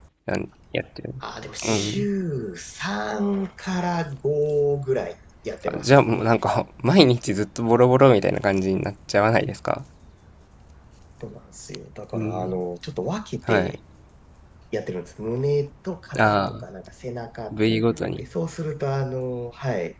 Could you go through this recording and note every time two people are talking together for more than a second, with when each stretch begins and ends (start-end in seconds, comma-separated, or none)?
none